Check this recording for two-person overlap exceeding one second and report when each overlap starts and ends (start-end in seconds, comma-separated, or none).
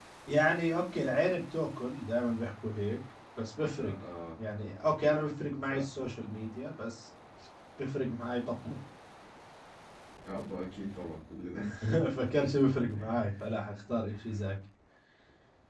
none